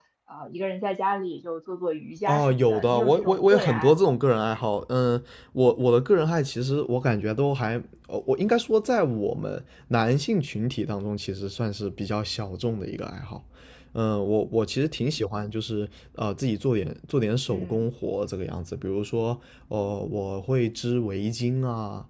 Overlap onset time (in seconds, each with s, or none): 2.2 s